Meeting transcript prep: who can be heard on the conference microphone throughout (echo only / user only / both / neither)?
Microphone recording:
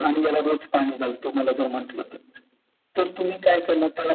echo only